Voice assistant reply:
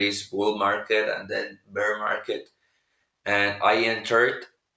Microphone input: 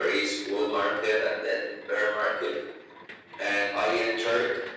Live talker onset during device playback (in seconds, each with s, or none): none